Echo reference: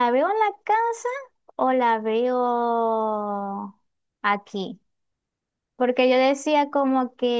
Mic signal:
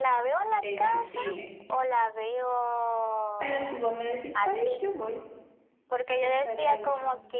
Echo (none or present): present